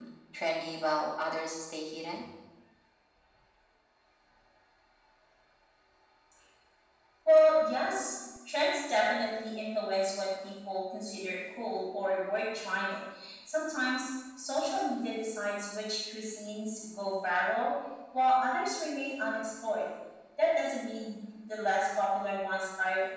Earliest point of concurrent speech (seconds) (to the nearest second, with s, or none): none